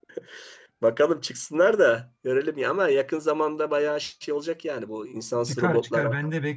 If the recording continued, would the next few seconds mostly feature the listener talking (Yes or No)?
Yes